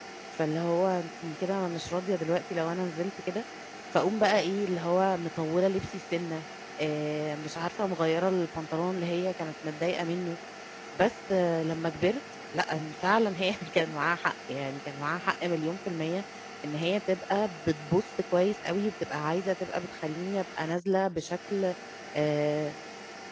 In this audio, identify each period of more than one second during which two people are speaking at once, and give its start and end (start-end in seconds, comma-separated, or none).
none